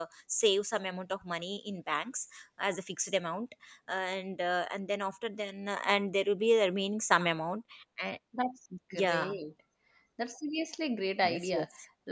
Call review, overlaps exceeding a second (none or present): none